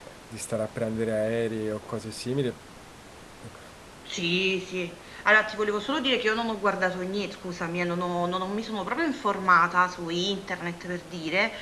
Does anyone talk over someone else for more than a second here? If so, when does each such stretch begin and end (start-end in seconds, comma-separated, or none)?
none